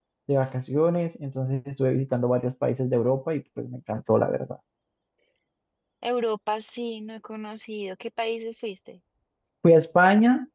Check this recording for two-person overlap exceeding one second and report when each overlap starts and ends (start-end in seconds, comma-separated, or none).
none